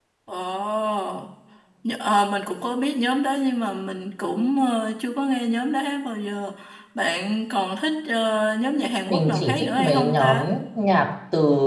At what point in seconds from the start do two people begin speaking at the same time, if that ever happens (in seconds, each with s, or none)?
9.1 s